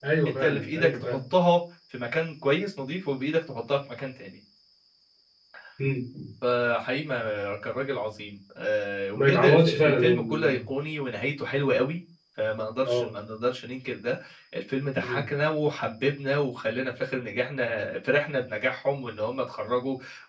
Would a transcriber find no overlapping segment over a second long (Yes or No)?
No